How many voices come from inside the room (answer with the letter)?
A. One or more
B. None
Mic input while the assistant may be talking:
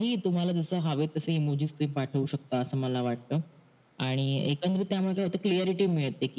B